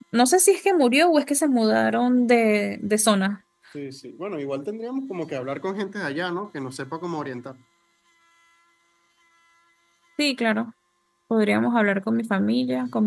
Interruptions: none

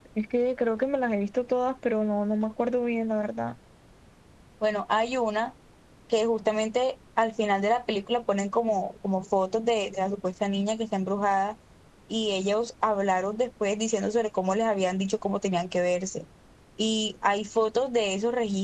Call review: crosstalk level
none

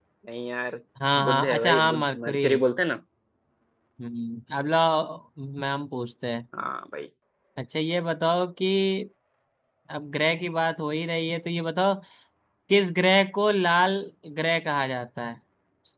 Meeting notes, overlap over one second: present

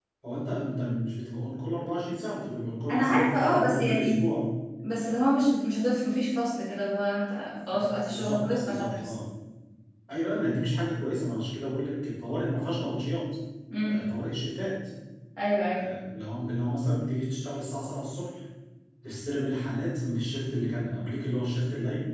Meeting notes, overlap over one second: present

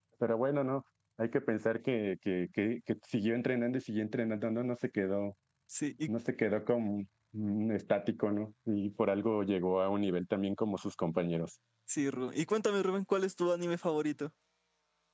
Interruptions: none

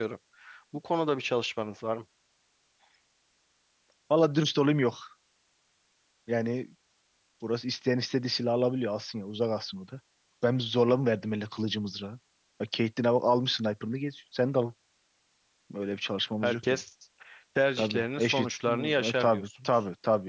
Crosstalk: present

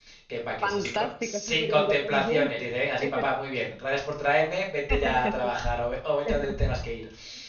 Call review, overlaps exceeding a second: present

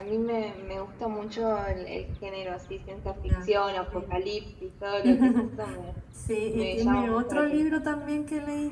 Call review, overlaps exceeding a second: present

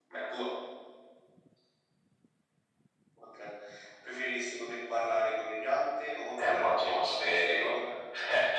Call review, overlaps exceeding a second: present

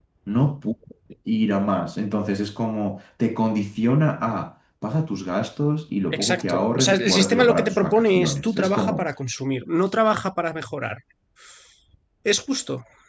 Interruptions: present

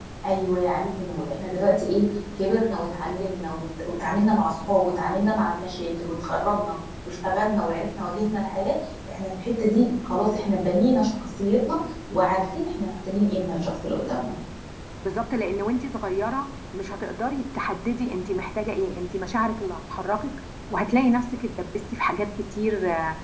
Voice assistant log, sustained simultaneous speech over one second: none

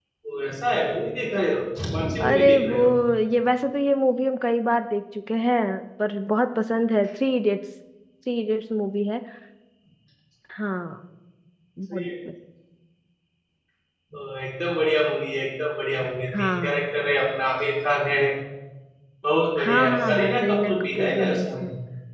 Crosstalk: present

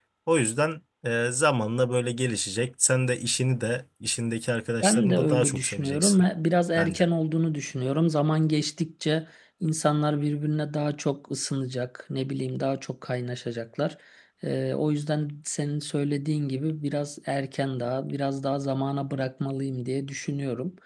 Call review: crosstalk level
present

